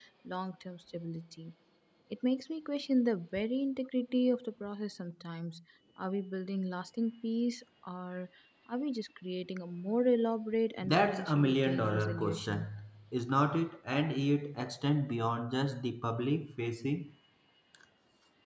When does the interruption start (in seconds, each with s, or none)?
10.8 s